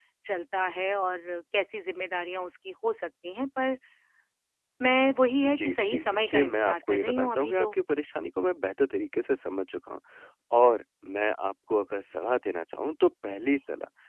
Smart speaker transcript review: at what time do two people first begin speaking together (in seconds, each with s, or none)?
5.4 s